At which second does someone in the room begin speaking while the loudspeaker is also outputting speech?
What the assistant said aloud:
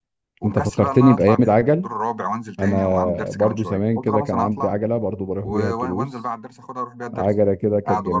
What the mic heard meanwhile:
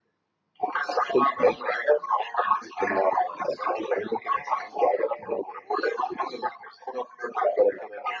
none

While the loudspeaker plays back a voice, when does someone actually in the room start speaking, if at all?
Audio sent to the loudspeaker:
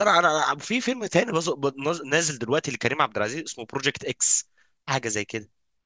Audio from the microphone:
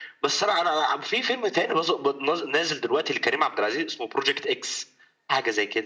none

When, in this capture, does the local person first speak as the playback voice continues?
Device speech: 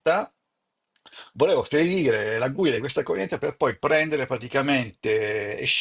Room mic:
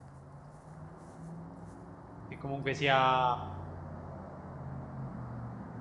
2 s

